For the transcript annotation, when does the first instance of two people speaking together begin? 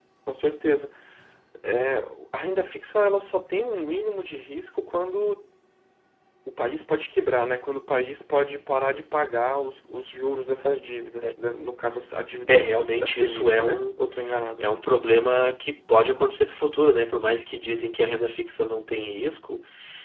12.5 s

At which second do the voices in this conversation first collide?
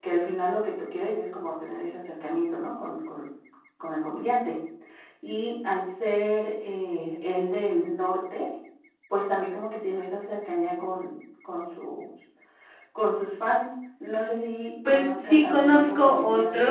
14.8 s

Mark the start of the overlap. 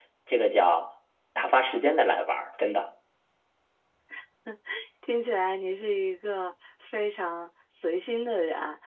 none

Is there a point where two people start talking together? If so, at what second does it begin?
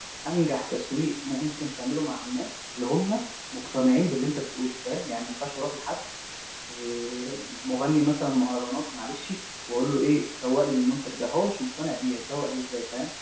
none

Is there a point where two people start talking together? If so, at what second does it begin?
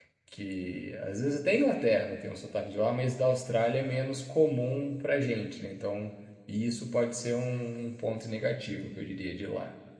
none

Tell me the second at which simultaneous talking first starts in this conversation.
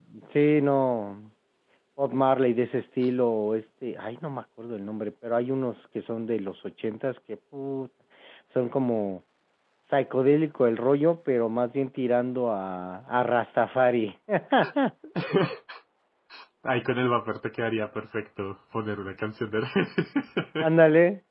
none

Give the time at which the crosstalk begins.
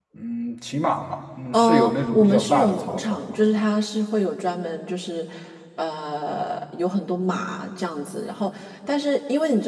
1.5 s

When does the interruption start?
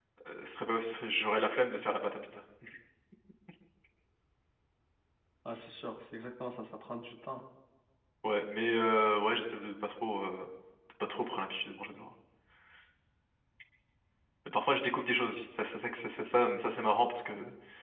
none

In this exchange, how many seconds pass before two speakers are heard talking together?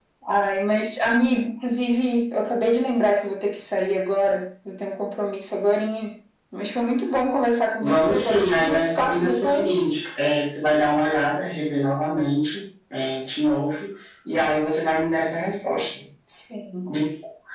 7.8 s

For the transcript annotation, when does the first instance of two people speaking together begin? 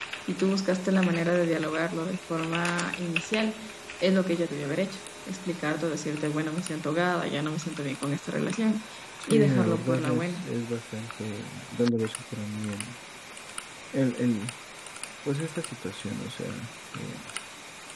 9.3 s

